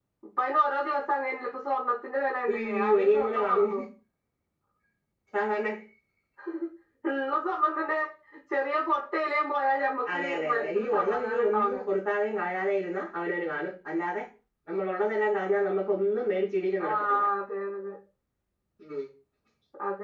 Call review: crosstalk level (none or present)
present